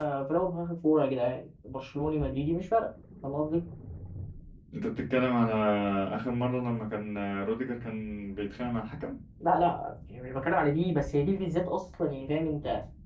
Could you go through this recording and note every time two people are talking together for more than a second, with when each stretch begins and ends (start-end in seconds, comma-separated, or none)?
none